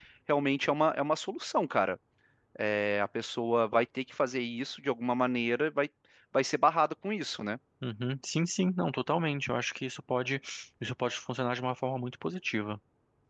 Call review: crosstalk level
none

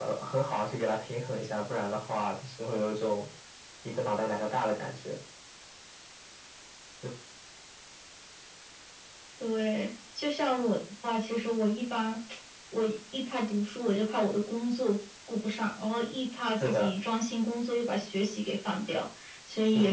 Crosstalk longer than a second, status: none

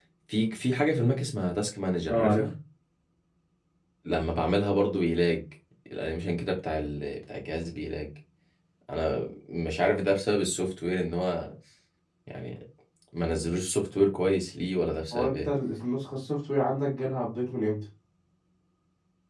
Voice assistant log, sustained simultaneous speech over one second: none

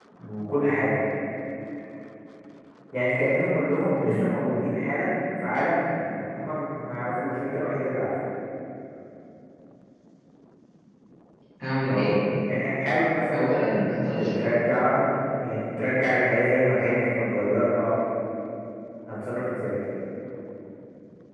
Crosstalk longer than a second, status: none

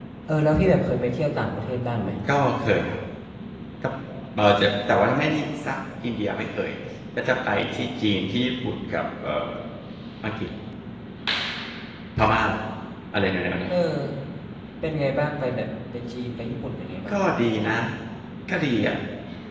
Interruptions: none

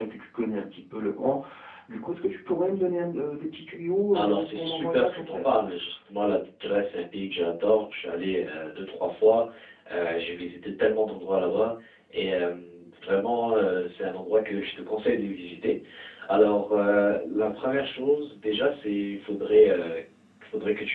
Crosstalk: present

